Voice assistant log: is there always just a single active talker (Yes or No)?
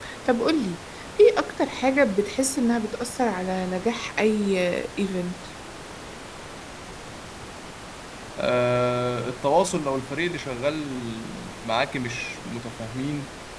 Yes